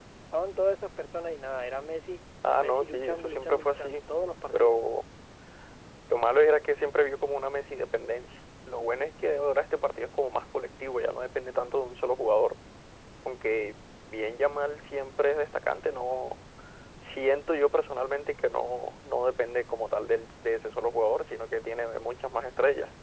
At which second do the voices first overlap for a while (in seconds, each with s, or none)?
2.6 s